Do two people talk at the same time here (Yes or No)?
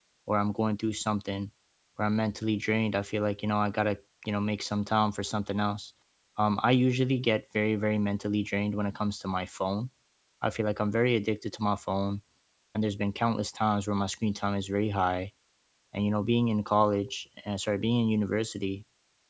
No